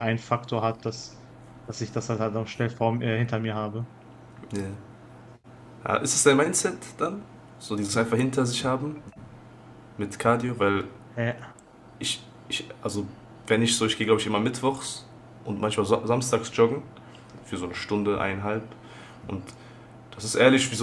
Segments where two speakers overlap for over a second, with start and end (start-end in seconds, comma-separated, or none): none